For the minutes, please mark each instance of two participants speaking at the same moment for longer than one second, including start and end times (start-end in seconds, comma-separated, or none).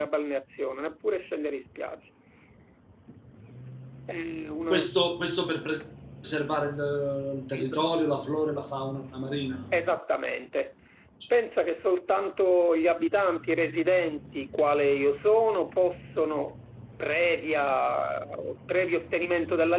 none